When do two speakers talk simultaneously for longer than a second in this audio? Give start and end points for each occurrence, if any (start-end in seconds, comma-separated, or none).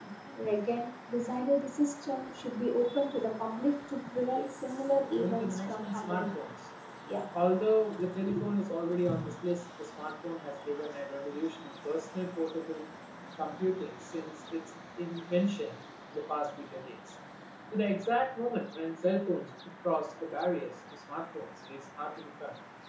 4.3-6.3